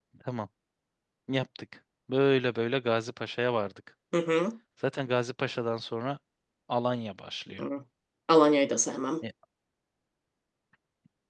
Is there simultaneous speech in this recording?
No

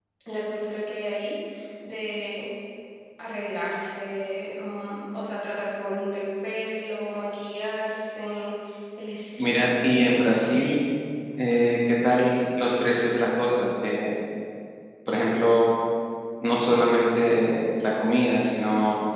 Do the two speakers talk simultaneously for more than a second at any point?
Yes, from 9.4 s

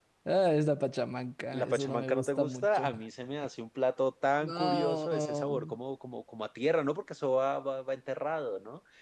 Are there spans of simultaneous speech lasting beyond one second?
Yes, from 1.5 s

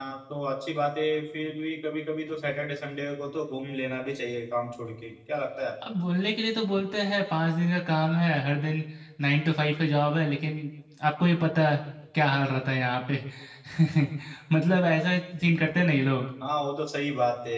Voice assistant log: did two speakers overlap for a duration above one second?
No

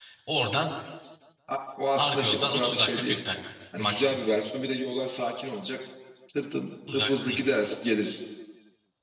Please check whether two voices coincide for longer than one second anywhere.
Yes, from 2.0 s

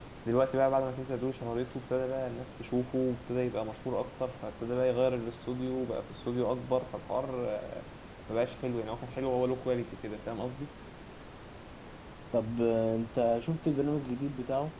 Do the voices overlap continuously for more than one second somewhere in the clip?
No

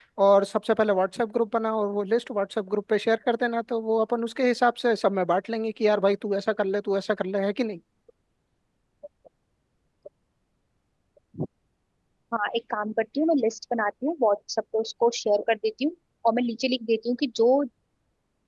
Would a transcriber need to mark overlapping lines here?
No

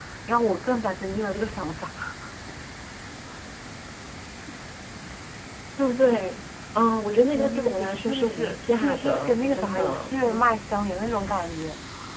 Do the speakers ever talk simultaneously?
Yes, from 7.3 s

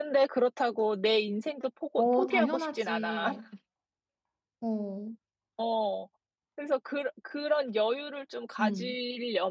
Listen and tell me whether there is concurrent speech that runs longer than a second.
Yes, from 2.0 s

